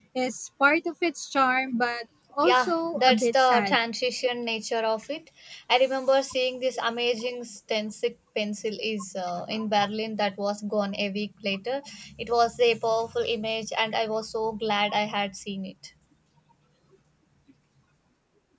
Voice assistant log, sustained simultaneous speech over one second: present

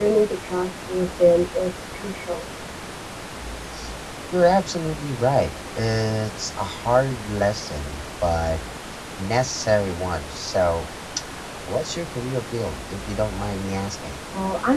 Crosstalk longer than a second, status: none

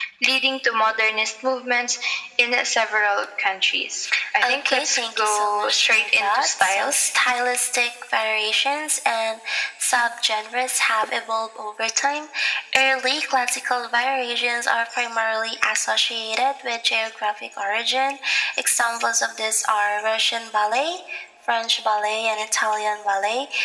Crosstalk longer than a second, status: present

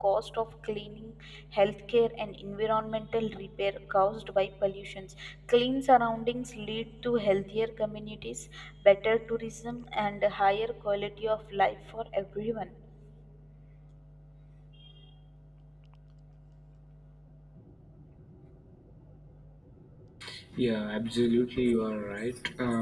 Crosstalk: none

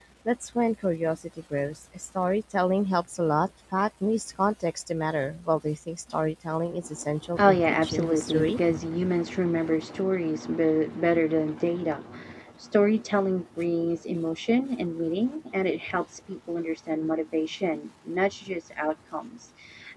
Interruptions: present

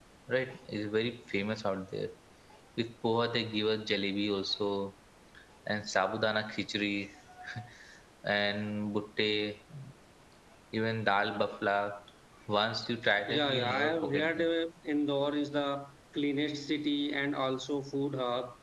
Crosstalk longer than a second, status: present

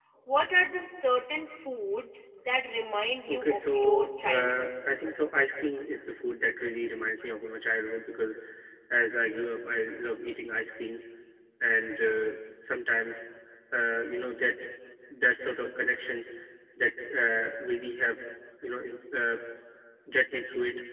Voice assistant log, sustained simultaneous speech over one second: present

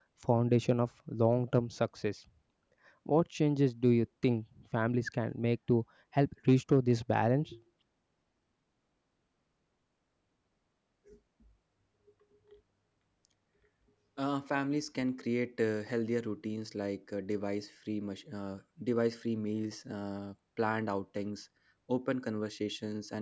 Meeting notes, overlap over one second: none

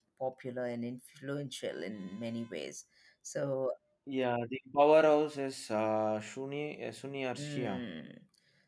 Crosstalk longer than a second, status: none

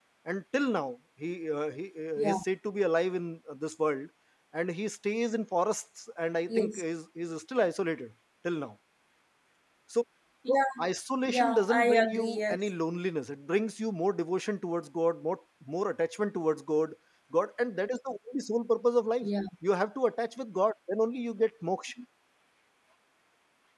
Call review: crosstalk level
present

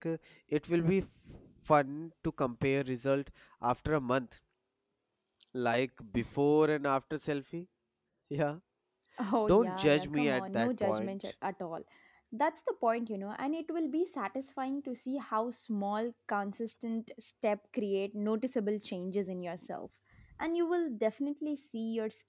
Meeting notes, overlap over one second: present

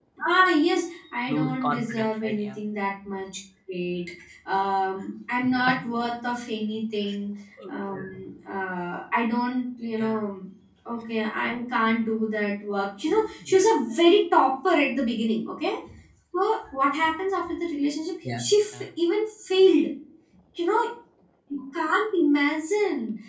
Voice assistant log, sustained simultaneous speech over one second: present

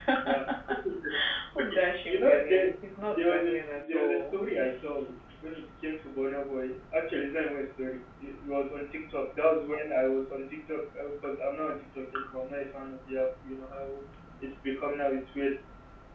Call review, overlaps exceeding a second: present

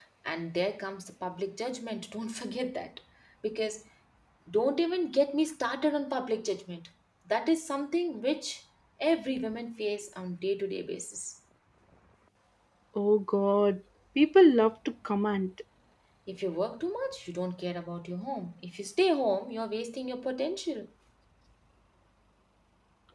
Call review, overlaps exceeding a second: none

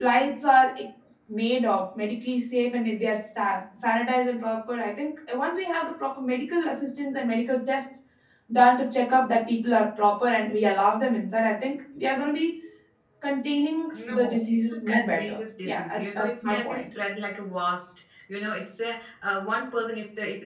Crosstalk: present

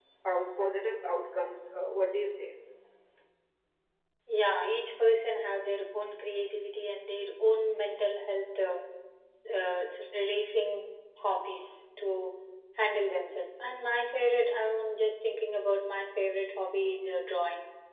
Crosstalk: none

